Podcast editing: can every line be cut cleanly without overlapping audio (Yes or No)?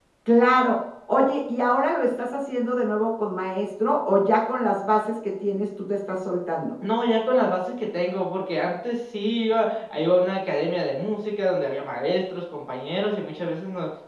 Yes